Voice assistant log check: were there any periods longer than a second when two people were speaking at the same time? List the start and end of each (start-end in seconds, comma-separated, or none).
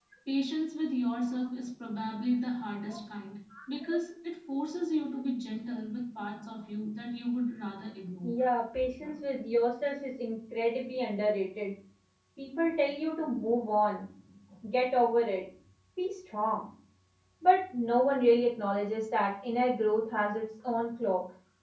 none